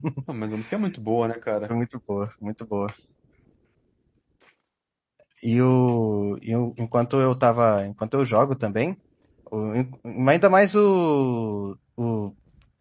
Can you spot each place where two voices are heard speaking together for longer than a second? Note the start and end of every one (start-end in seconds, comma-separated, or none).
none